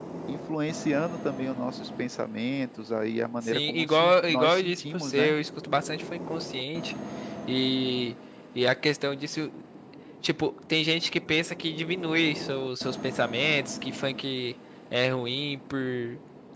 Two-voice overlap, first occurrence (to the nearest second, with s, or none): 3 s